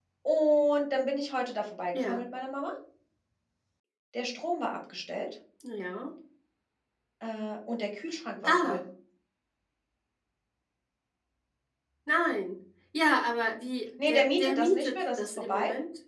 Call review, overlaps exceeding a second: present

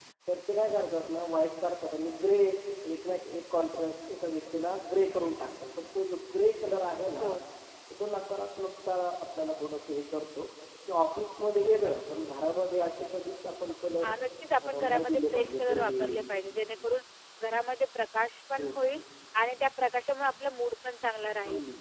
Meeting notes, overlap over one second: present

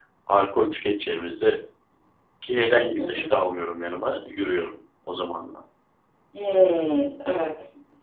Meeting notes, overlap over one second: none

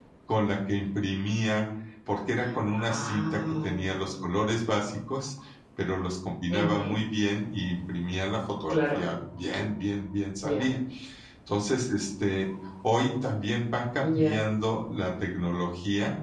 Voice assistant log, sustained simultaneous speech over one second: present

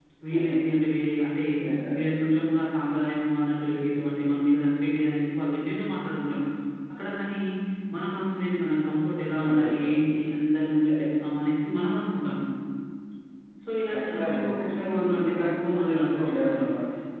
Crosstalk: present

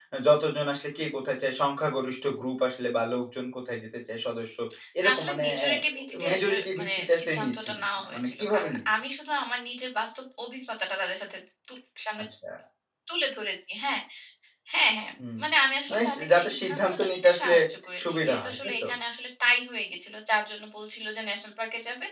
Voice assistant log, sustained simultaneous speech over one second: present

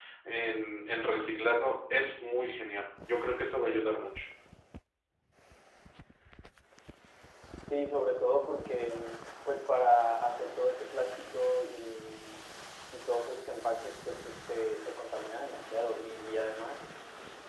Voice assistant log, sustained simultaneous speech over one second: none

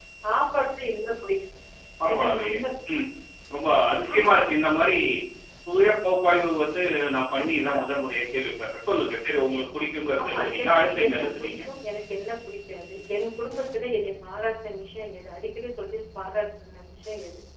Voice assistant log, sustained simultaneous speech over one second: present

